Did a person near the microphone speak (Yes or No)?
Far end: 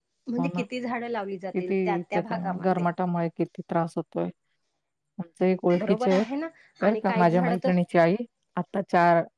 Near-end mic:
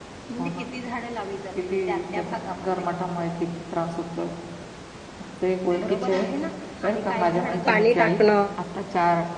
Yes